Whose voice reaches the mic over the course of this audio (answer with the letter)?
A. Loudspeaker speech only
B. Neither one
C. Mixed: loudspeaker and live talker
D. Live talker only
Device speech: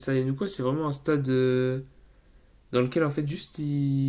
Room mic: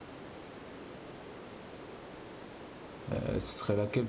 D